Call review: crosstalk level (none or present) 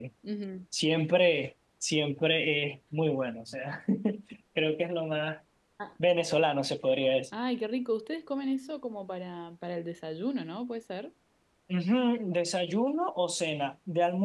none